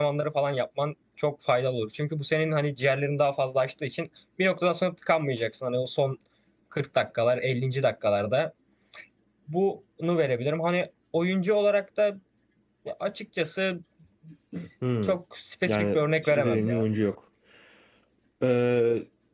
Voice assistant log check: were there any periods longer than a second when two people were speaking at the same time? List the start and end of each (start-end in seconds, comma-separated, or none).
15.6-16.8